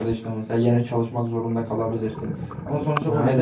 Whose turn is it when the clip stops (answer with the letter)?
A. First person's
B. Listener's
A